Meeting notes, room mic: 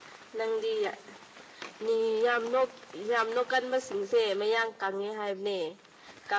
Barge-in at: none

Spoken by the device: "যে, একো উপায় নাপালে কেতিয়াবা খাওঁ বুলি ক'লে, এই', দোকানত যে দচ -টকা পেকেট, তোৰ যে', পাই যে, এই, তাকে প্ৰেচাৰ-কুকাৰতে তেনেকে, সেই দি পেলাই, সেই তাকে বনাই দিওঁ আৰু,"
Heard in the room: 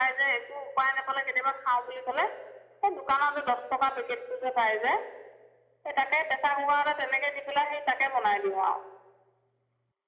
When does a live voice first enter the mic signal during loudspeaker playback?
none

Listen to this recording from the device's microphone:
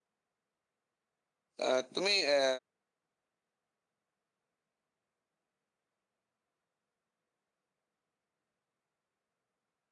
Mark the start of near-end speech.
1.6 s

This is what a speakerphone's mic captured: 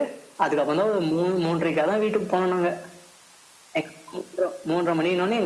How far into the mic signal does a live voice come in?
none

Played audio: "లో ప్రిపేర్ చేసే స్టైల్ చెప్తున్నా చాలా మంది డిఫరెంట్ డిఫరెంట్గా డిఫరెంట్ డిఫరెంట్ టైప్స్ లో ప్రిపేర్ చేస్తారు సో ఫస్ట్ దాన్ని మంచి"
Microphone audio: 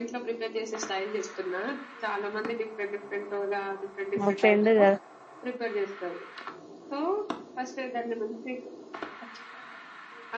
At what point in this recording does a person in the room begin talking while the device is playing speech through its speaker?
4.2 s

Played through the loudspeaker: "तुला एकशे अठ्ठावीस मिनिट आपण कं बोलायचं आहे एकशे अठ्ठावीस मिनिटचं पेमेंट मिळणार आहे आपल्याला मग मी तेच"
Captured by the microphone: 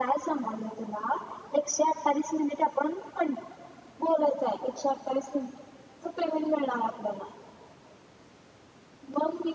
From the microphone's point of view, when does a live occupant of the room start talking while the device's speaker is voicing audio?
none

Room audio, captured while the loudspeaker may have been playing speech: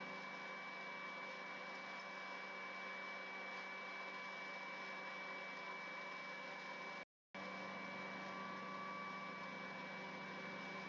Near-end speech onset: none

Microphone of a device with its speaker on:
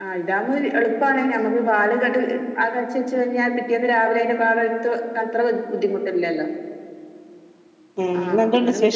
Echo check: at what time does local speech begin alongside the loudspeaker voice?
8.0 s

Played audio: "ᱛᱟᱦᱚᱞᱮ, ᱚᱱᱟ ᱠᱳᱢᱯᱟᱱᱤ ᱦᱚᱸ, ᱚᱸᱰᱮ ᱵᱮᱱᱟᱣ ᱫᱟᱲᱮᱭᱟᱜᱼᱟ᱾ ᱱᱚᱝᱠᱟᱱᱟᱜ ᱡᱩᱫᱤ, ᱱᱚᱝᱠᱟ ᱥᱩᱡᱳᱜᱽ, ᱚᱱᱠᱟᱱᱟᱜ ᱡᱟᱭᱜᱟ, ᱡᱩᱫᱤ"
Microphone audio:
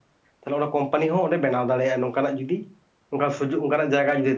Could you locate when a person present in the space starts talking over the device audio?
none

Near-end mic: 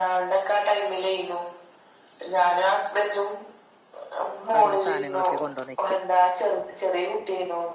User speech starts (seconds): 4.5 s

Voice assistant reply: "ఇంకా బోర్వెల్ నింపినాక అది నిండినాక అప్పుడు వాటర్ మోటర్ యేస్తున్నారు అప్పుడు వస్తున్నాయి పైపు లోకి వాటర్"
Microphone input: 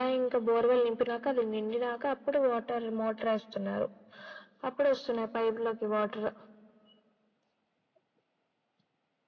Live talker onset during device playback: none

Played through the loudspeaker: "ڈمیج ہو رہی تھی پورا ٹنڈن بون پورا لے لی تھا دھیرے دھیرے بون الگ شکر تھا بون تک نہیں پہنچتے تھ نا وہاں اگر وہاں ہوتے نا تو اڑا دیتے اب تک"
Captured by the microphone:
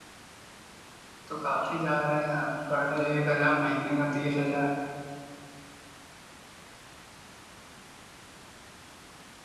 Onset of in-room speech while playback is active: 1.3 s

